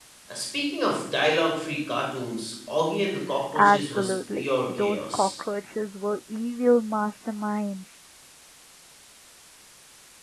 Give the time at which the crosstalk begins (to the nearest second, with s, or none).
4 s